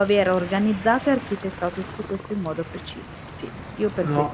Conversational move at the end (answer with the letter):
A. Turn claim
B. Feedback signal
A